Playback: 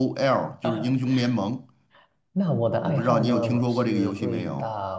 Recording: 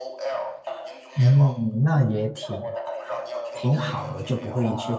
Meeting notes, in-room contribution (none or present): present